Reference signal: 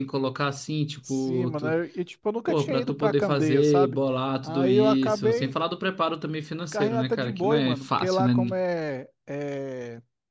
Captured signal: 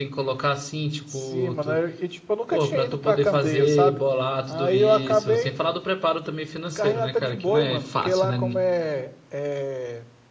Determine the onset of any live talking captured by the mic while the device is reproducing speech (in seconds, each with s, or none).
none